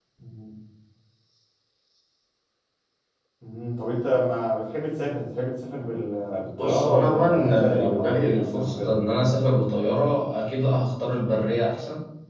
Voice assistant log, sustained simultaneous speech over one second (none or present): present